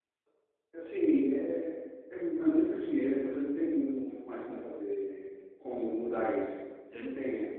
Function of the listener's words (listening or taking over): listening